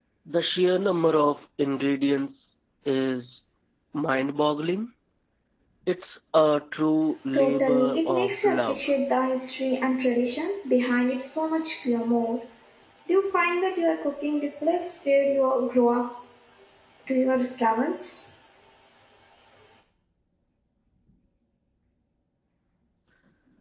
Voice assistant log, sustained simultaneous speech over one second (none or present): present